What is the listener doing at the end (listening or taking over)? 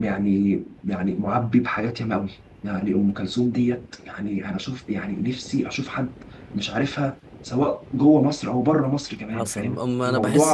taking over